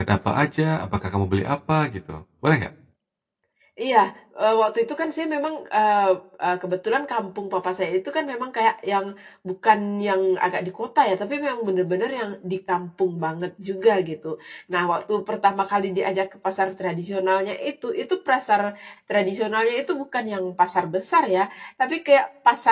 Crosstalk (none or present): none